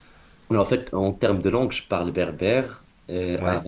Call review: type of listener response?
listening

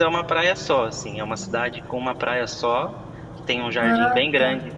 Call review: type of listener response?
listening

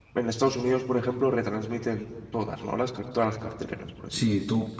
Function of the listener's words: taking over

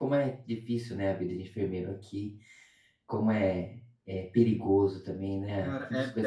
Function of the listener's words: taking over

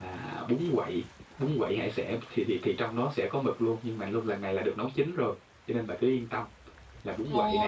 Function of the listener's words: taking over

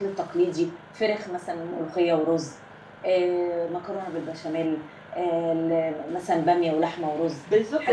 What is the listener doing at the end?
taking over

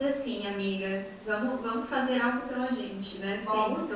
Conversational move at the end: taking over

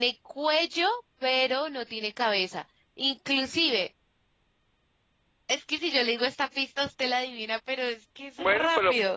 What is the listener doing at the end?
taking over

